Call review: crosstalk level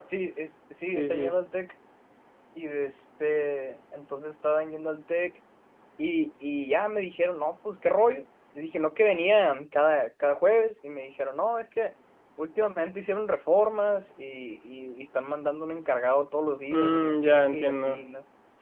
present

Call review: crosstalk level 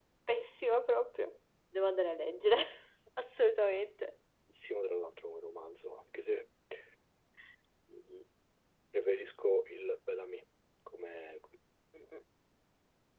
none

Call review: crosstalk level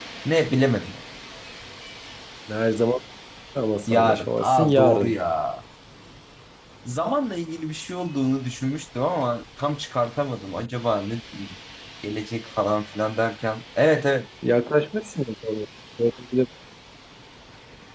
present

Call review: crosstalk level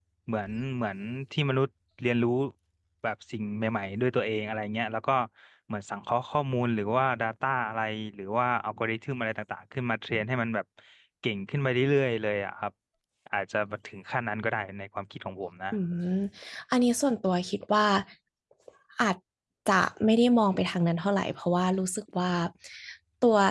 none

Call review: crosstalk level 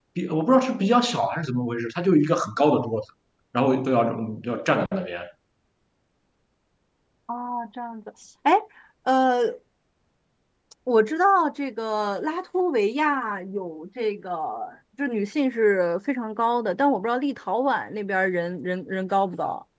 none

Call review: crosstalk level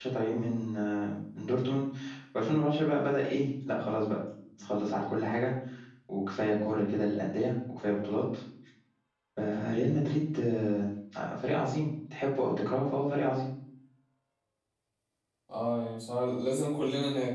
none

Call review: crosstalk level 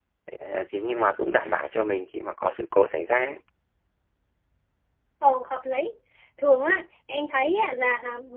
none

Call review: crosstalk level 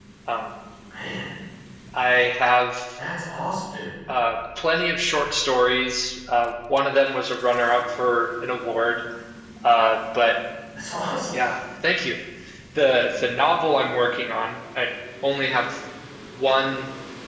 none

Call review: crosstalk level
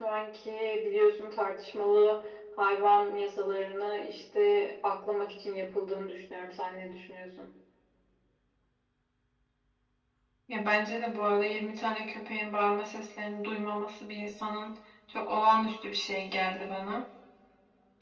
none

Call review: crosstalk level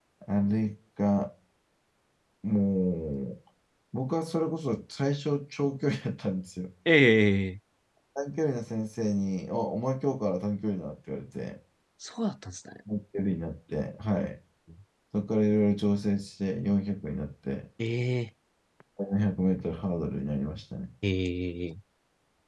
none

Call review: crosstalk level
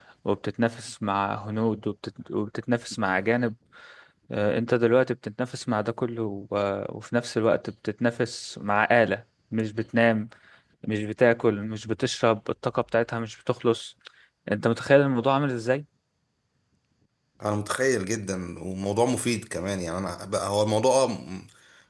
none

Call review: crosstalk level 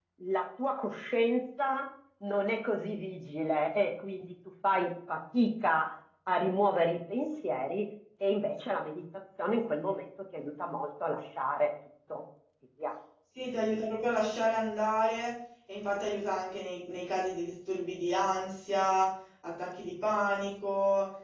none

